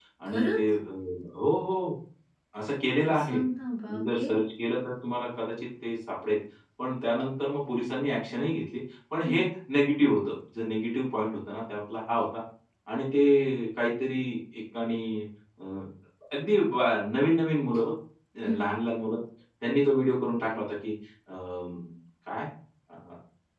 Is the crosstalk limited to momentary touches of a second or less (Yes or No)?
Yes